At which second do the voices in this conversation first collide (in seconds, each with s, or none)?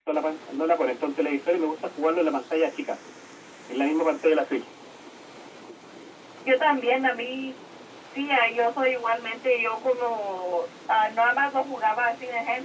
none